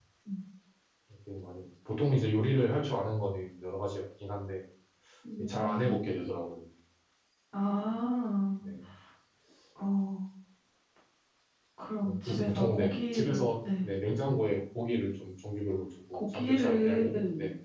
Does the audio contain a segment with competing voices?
Yes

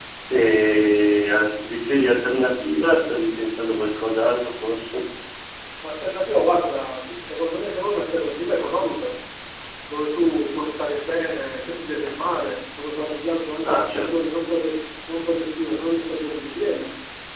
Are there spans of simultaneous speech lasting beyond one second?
No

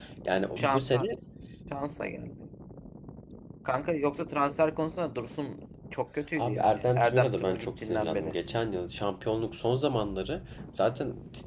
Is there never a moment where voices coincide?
No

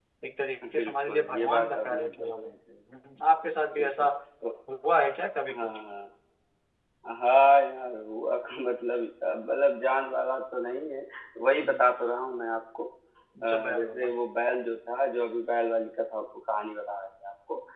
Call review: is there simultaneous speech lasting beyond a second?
Yes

